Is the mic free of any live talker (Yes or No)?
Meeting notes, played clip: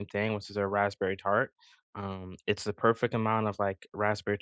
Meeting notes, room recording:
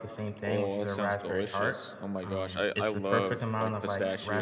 No